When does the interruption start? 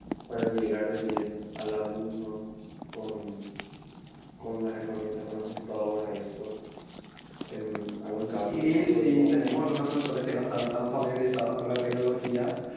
8.5 s

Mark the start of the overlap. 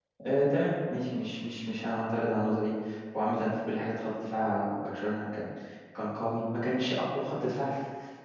none

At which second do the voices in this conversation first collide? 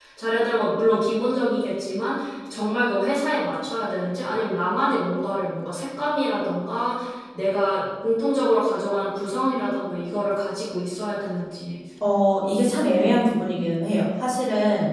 none

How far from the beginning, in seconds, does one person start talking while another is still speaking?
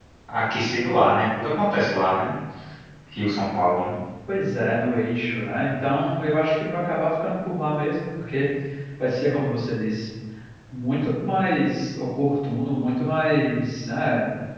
none

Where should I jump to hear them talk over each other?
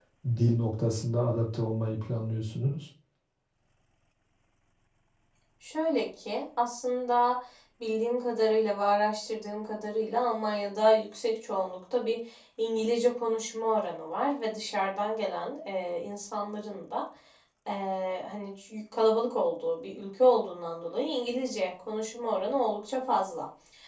none

